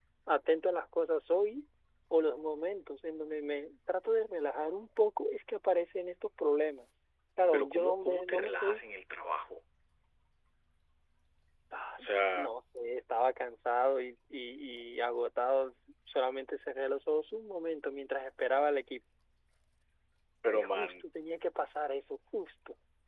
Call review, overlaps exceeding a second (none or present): present